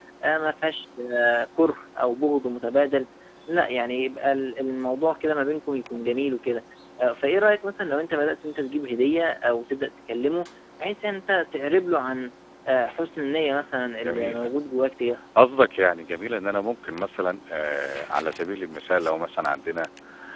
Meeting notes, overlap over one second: none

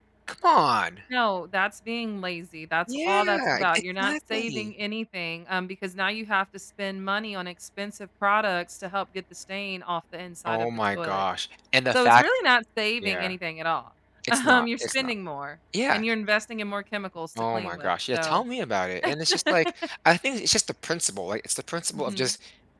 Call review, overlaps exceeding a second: present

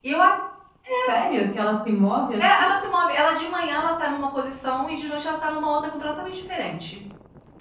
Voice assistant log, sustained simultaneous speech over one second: none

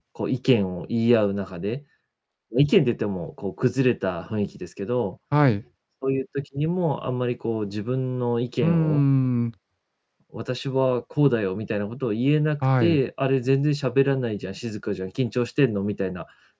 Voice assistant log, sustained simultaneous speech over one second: none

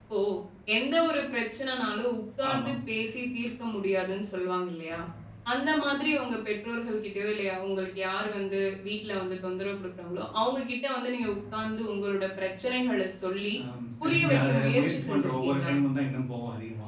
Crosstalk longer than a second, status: present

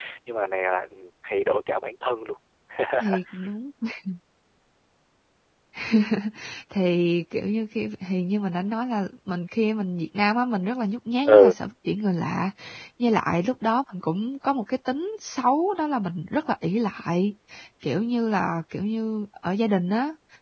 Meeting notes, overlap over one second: none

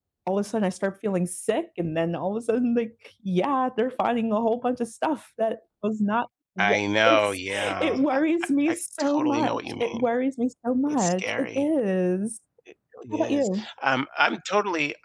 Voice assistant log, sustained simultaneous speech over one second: present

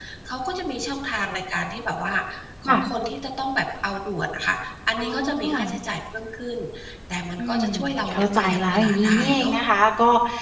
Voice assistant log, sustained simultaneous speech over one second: present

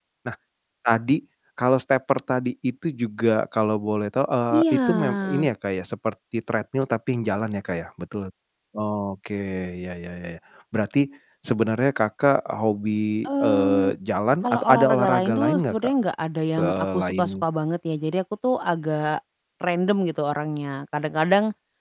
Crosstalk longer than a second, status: present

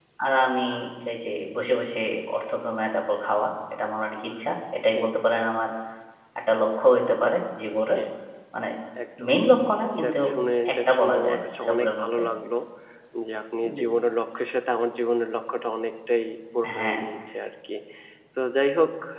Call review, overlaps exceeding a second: present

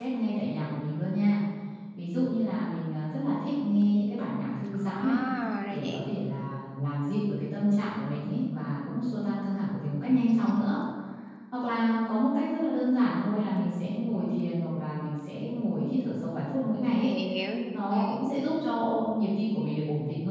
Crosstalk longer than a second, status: none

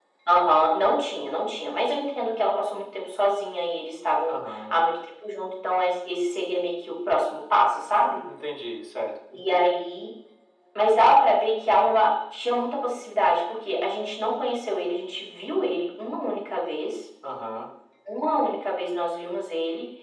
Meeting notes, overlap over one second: none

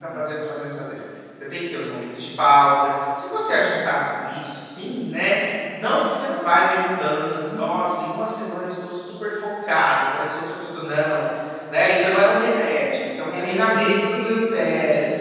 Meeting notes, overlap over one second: present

